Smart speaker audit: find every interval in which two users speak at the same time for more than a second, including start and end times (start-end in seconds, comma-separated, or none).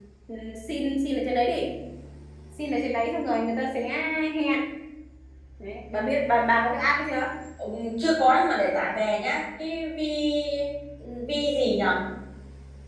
none